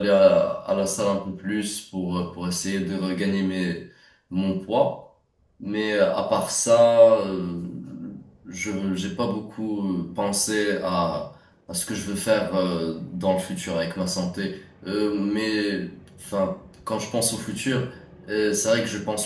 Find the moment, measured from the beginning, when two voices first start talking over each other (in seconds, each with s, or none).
none